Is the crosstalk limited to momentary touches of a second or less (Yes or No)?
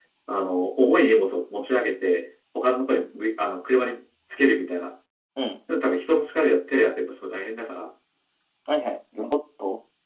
Yes